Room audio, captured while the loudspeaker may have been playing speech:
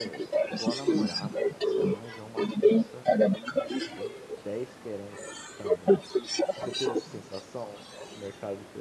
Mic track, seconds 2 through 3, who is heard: both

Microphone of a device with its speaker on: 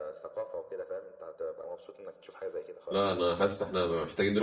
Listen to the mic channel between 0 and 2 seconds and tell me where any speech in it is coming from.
echo only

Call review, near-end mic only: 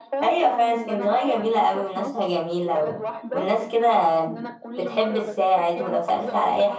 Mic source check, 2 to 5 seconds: both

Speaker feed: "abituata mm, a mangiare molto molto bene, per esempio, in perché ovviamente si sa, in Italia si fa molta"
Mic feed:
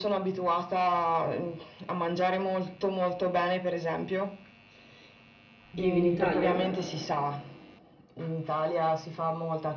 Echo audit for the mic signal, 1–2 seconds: echo only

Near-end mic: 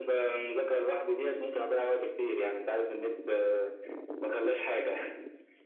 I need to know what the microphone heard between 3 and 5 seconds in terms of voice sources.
echo only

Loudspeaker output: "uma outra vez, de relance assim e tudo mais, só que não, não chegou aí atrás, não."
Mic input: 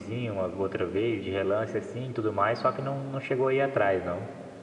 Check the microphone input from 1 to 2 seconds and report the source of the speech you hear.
echo only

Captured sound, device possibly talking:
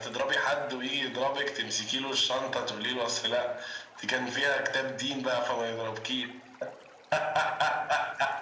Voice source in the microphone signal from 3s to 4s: echo only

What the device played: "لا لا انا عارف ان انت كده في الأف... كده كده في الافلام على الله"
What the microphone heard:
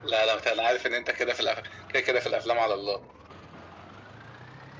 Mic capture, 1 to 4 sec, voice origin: echo only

